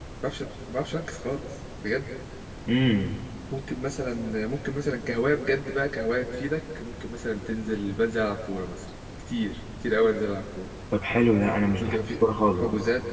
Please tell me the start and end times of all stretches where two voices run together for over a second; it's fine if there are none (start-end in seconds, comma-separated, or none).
none